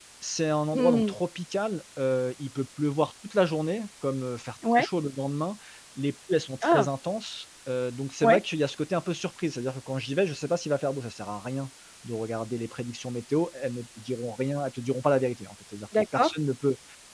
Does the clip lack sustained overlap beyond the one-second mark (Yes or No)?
Yes